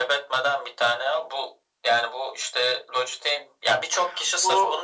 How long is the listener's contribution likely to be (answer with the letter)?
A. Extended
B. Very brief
B